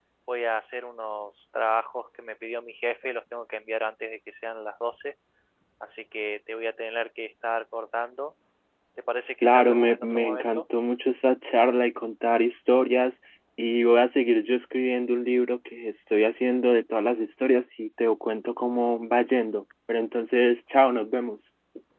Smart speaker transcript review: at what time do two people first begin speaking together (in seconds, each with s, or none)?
9.4 s